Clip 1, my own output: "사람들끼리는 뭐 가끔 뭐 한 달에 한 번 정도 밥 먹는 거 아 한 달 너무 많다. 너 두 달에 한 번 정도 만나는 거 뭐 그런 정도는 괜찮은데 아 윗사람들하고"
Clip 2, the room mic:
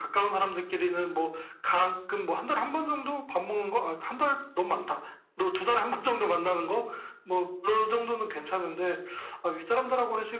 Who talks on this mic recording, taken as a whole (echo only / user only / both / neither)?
echo only